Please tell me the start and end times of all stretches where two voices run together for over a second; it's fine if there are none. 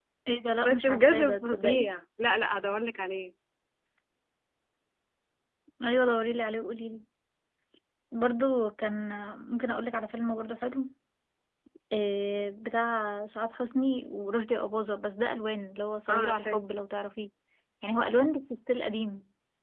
0.6-1.9

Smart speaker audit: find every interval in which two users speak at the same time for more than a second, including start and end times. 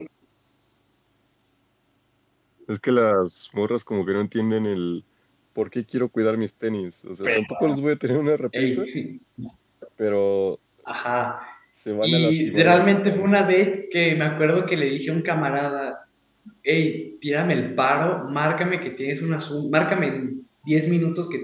12.0-13.5

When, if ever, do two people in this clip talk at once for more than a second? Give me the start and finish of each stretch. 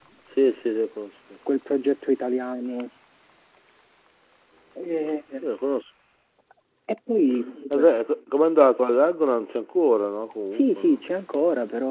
none

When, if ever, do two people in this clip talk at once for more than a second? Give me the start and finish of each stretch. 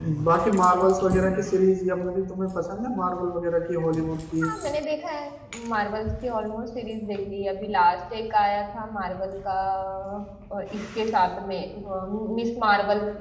none

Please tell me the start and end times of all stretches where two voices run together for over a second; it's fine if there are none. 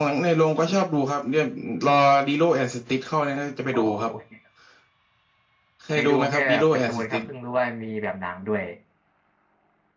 6.0-7.2

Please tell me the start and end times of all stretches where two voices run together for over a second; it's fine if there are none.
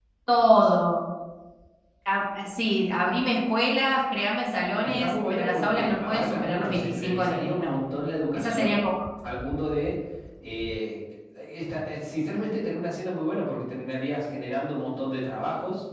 4.8-7.8

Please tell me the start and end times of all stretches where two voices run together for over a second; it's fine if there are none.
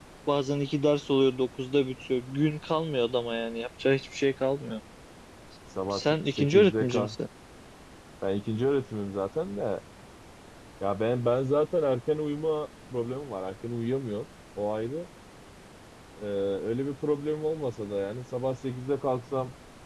5.9-7.2

